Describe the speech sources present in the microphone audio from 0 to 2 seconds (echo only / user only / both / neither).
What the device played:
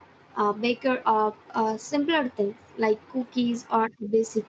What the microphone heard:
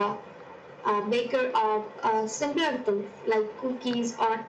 echo only